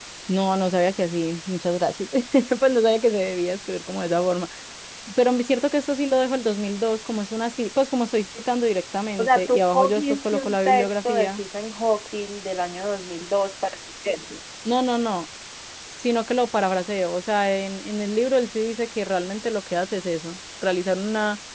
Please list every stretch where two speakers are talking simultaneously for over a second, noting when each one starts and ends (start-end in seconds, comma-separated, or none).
9.2-11.4